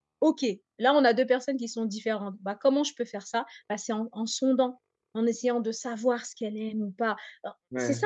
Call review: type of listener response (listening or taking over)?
listening